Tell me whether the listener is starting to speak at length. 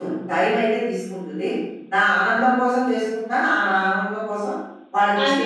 Yes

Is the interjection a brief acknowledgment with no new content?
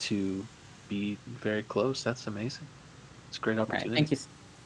No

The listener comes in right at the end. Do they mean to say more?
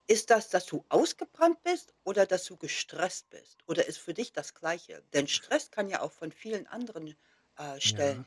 Yes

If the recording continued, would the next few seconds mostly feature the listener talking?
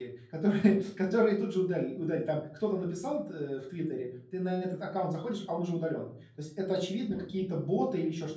No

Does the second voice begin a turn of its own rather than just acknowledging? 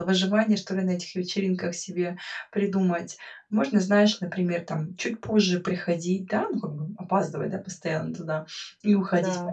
No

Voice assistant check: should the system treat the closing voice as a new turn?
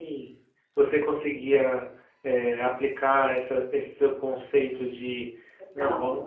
No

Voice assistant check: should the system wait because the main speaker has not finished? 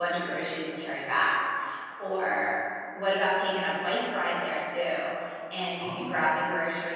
Yes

